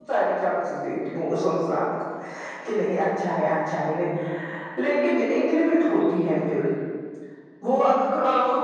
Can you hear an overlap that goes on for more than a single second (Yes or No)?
No